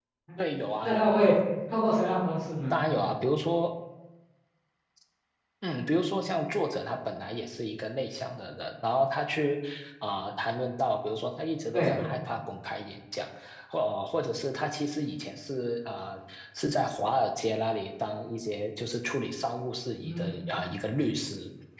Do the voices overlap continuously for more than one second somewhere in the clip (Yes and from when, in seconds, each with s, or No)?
No